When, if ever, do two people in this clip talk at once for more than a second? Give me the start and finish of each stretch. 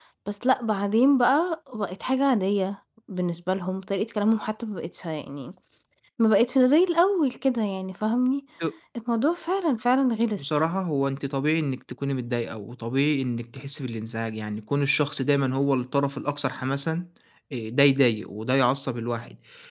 none

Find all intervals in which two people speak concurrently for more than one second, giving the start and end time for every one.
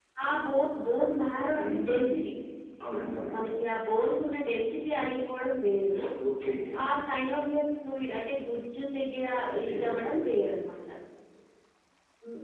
none

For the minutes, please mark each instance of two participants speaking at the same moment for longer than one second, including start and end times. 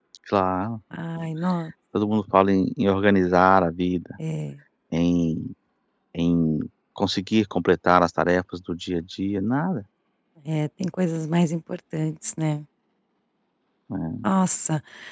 none

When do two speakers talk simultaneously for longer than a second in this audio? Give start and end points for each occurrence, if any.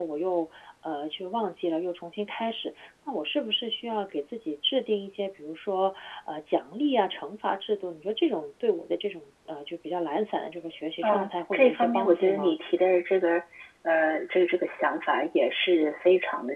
11.0-12.6

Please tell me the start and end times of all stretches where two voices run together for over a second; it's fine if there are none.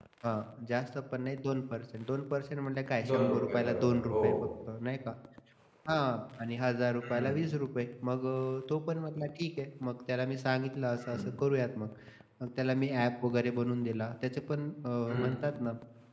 3.1-4.3

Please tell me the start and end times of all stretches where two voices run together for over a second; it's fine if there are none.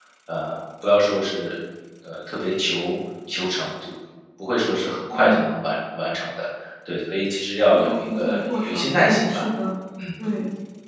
7.7-9.4

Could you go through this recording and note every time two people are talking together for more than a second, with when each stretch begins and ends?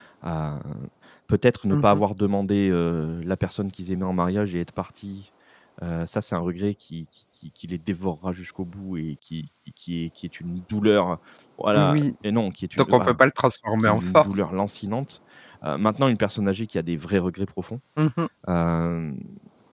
none

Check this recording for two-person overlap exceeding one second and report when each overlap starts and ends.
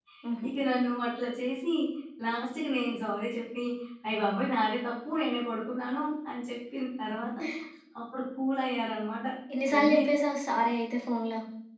none

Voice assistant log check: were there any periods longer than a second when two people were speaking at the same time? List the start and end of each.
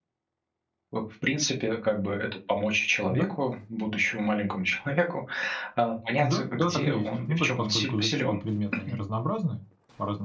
6.2-8.4

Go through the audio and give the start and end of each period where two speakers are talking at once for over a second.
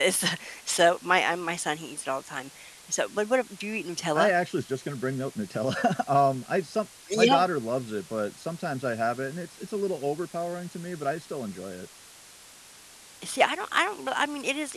none

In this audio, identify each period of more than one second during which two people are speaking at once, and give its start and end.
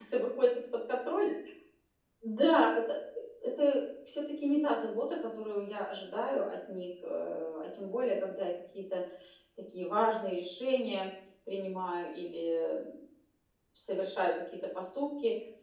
none

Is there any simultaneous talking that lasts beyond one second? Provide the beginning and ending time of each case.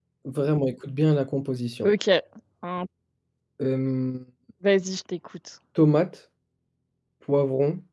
none

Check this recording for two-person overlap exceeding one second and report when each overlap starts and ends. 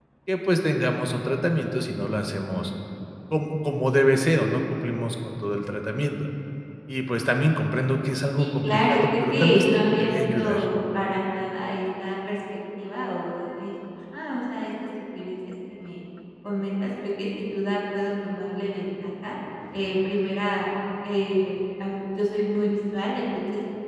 8.4-10.6

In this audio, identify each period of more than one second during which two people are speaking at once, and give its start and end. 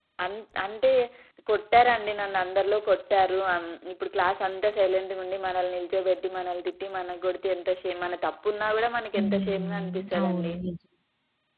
9.2-10.5

